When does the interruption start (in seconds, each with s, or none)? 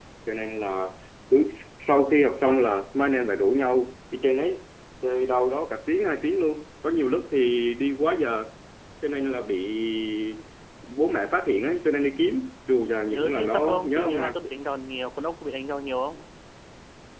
13.1 s